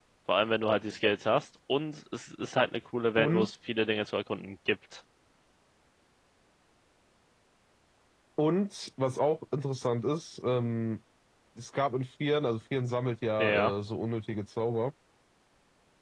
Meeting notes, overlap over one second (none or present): none